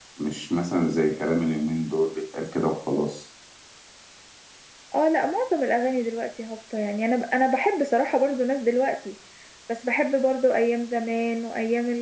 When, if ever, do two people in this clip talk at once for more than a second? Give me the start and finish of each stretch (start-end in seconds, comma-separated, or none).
none